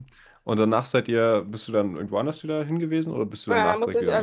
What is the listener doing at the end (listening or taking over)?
taking over